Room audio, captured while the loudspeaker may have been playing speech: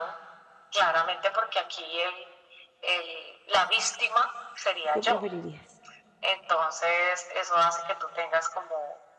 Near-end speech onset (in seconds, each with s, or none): 4.8 s